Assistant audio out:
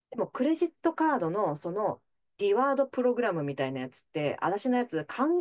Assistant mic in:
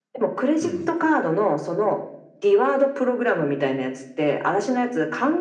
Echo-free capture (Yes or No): No